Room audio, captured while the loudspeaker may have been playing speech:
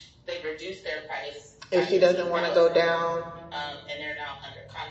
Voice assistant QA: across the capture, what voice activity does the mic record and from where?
both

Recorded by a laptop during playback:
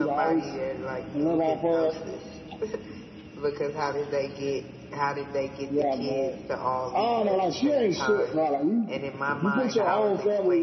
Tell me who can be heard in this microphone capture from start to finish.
both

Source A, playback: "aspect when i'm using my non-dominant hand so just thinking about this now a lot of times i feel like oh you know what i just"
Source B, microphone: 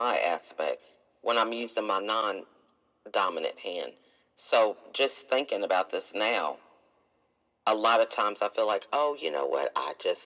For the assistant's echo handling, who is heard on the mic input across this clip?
echo only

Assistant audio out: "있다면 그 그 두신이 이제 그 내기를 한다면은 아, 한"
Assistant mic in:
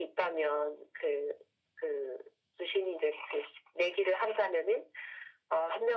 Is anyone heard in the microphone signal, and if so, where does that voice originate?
echo only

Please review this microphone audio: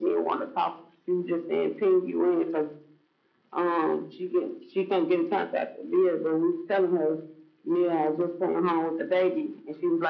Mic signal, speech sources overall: echo only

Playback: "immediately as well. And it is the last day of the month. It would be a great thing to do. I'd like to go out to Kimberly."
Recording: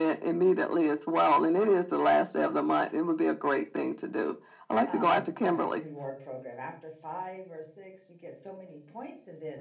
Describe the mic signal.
both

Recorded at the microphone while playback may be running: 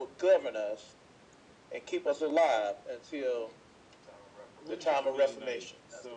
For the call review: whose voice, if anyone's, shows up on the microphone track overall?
both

